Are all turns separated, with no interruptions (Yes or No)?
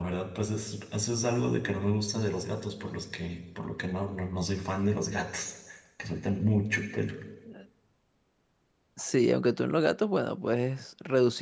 Yes